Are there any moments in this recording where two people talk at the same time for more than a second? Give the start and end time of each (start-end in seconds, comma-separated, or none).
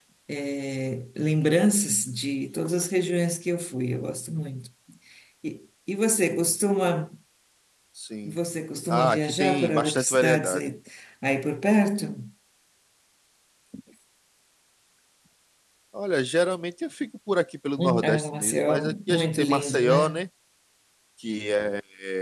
8.9-10.7, 17.8-20.2